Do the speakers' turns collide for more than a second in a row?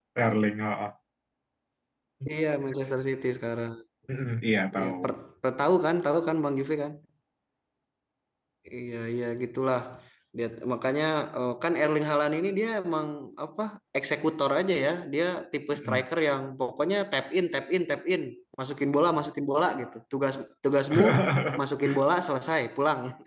No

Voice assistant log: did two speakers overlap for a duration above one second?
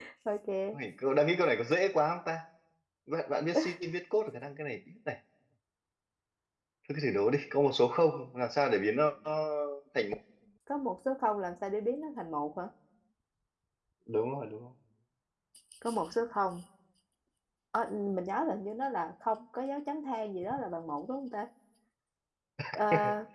No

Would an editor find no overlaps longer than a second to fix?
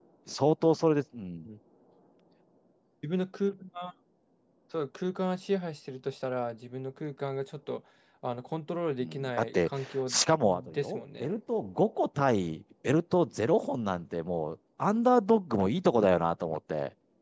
No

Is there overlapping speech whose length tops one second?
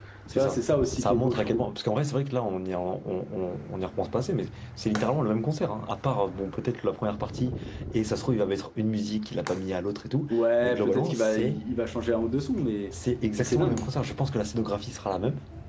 Yes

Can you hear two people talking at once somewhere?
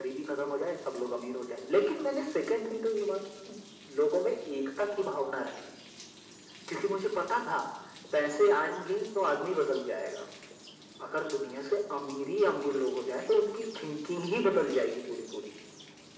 No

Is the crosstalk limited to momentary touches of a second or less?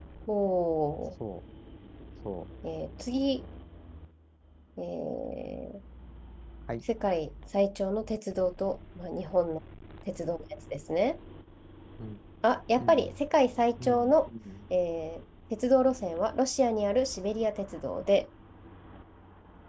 Yes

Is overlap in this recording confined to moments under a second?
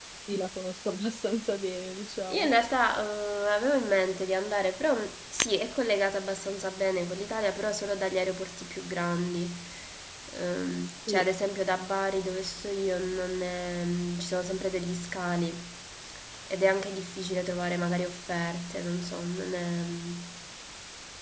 Yes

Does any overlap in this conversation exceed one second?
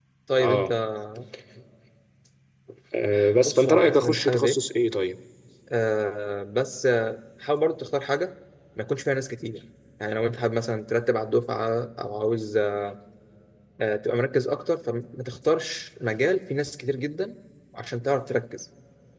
Yes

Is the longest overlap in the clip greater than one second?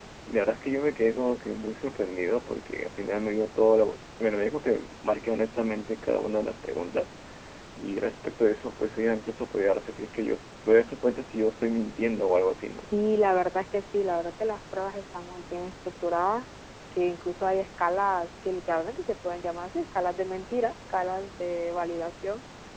No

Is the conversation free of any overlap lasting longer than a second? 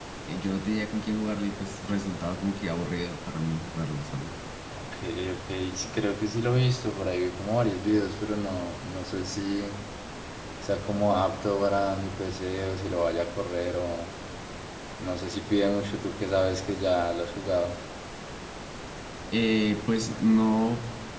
Yes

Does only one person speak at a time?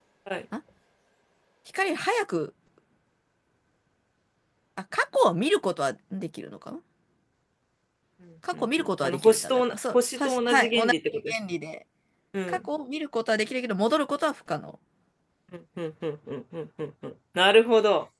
No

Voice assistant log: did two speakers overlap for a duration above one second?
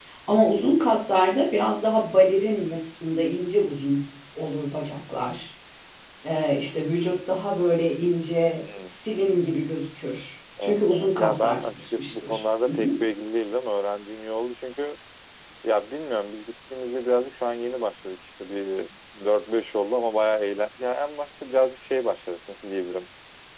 Yes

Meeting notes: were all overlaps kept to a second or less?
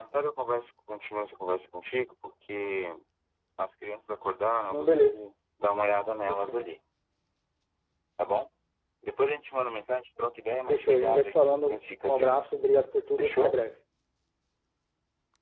No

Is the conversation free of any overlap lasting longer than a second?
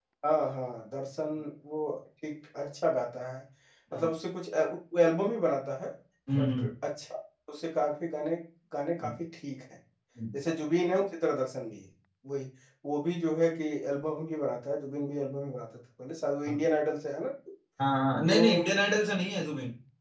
Yes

